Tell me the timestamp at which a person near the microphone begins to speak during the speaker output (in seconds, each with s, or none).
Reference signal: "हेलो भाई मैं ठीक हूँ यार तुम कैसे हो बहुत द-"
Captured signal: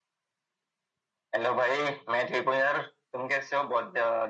none